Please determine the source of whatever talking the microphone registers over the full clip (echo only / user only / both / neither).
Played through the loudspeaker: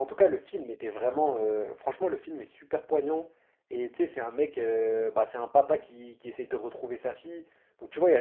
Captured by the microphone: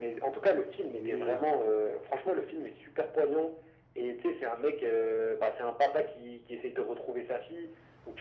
both